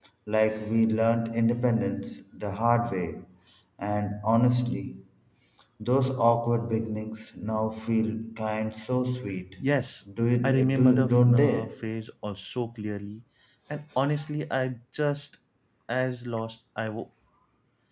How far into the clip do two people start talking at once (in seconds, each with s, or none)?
10.4 s